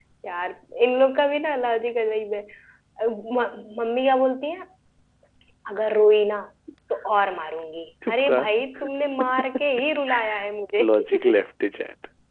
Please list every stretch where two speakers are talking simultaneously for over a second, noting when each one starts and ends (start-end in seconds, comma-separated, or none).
none